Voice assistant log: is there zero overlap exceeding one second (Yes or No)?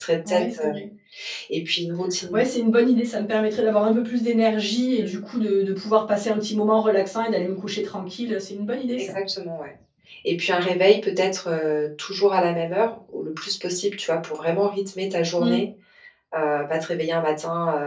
Yes